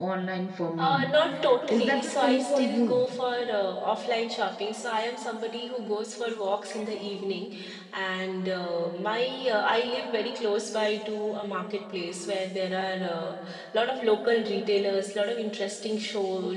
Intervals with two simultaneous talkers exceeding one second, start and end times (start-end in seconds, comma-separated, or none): 1.7-3.0